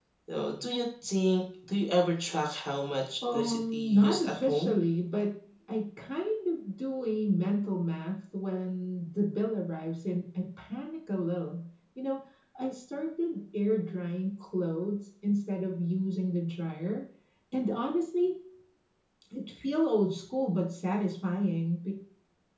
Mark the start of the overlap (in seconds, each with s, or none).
3.2 s